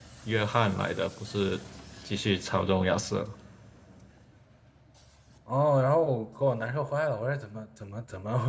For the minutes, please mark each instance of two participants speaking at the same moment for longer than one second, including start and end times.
none

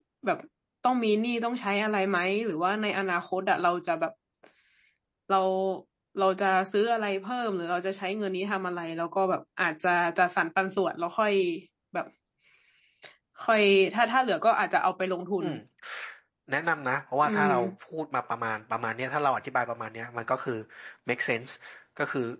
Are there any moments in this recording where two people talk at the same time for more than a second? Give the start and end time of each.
none

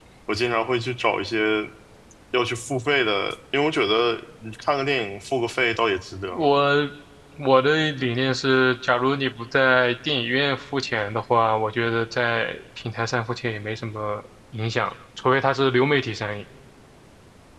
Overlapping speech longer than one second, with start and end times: none

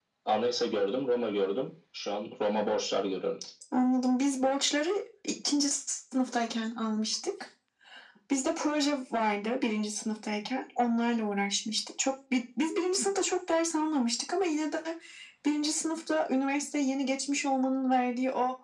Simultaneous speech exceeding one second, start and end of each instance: none

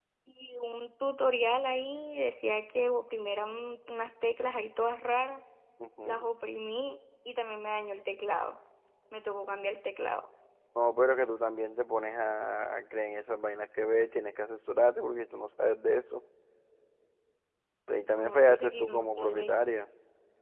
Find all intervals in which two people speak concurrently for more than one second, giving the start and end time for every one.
18.0-19.5

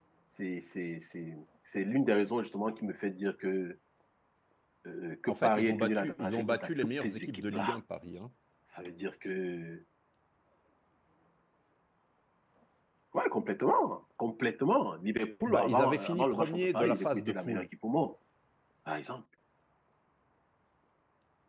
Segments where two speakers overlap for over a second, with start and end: 5.3-7.8, 15.5-17.7

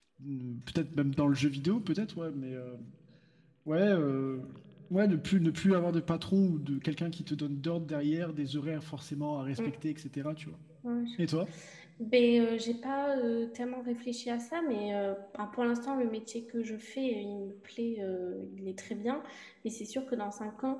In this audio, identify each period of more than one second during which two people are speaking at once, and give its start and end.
none

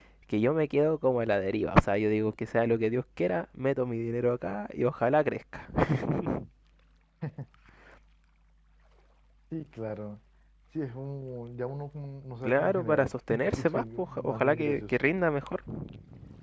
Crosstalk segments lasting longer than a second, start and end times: 12.4-14.9

